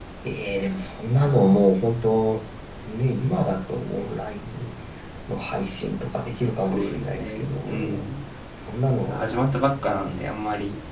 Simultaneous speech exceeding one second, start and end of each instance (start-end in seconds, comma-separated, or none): 6.6-8.0